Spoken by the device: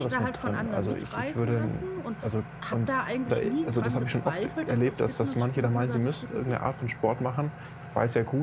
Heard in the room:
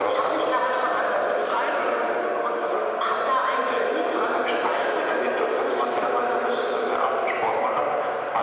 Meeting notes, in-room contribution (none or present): none